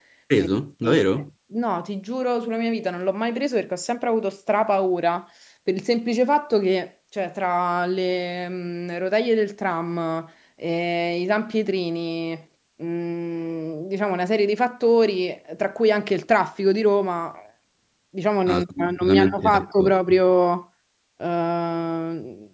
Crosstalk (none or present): present